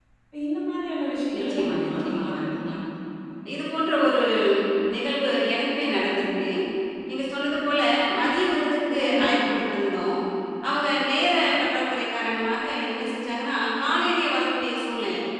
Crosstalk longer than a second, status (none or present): present